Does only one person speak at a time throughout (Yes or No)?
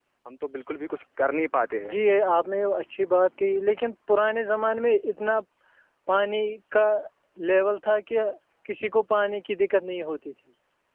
Yes